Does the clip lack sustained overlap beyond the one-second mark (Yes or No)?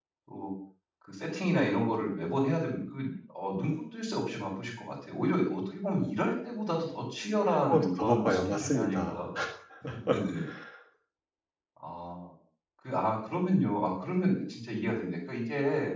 No